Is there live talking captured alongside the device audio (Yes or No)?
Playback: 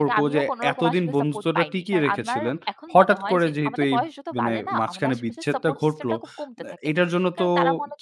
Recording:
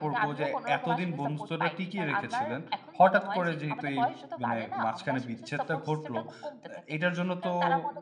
No